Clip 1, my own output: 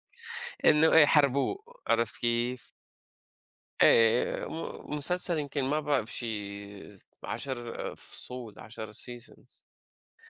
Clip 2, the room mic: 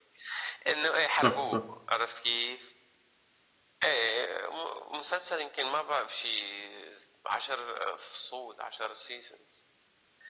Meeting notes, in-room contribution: present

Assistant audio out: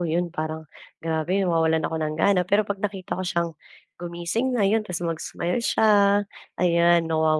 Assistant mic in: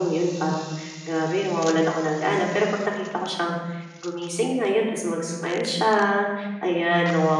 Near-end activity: none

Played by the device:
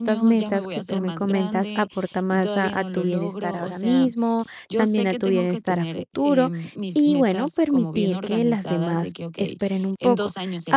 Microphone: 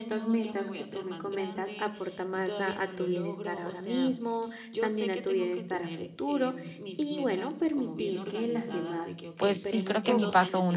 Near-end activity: present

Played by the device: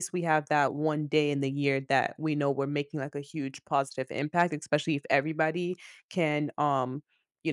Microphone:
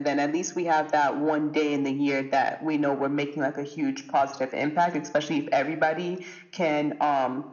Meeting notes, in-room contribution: none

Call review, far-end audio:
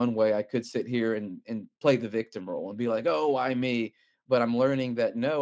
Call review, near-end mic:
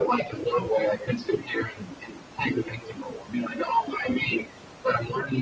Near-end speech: none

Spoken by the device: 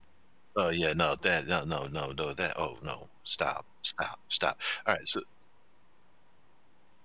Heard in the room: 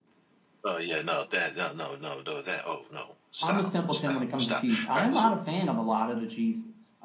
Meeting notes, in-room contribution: present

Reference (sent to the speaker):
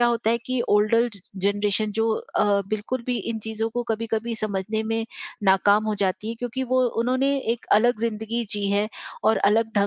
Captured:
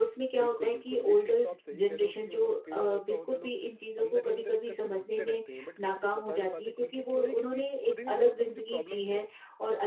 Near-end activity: present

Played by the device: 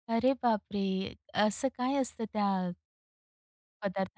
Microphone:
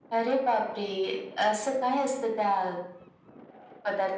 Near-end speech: none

